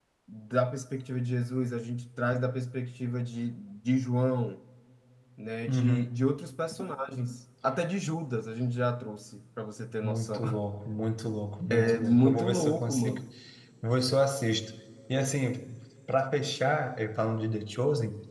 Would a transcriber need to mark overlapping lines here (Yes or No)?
Yes